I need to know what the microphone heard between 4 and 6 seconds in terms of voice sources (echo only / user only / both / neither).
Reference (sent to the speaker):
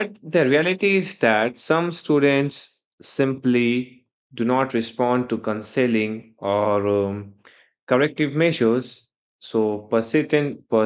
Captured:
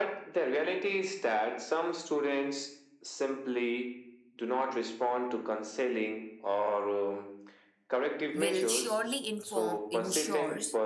echo only